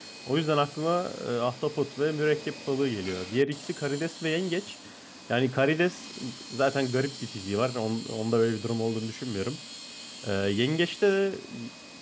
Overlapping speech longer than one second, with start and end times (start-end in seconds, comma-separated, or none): none